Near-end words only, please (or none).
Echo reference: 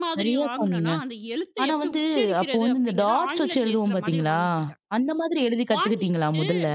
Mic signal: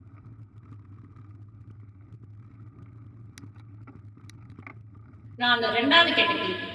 நான் அந்த 2வது கேட்டகிரி.